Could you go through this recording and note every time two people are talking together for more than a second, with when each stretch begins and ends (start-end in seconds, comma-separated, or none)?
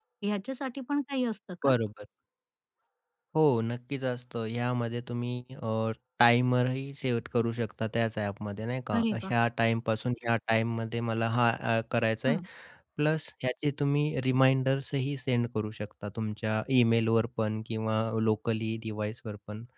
none